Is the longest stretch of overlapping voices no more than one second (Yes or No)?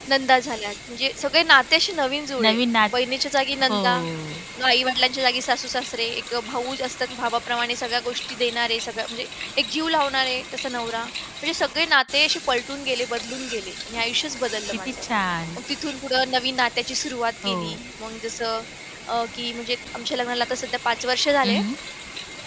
Yes